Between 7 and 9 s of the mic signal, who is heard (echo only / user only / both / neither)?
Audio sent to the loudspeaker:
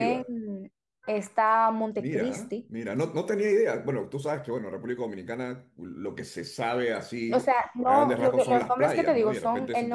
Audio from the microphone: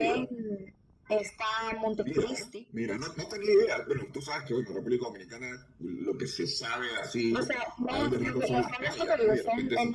echo only